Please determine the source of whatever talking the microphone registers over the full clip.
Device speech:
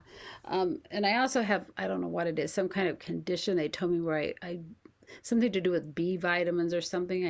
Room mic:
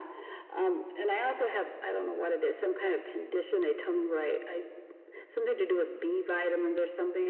echo only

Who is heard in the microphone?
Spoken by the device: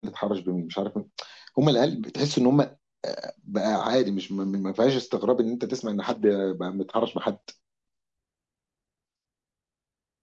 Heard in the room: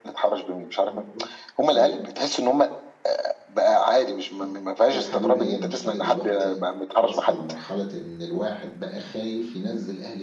both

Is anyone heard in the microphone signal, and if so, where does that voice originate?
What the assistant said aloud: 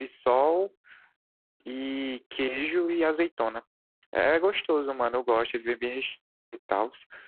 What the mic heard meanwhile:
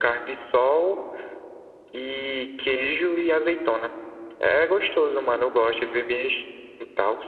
echo only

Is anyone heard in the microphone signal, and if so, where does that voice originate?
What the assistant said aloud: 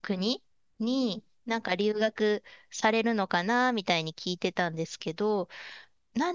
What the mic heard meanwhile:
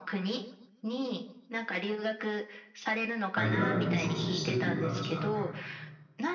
both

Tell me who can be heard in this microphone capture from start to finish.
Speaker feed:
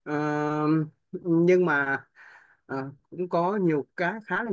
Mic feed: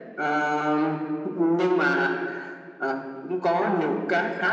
both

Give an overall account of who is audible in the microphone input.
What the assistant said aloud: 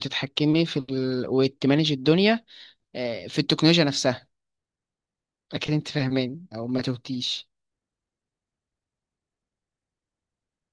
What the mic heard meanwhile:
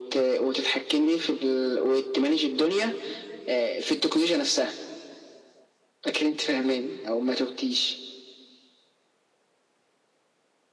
echo only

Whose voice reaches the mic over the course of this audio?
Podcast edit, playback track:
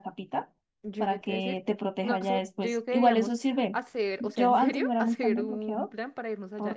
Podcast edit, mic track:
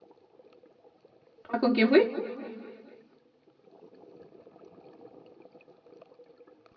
user only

